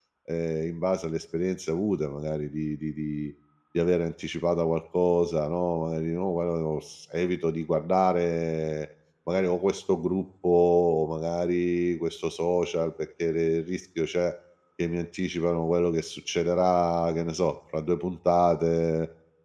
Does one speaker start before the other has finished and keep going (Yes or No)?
No